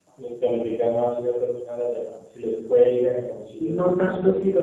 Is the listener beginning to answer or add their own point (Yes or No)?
Yes